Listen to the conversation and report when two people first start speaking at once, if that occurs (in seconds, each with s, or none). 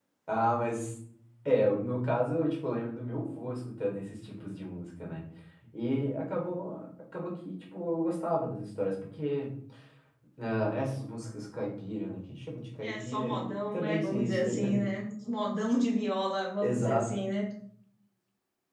12.8 s